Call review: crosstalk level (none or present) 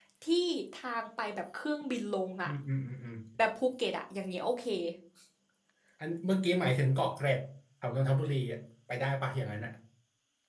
none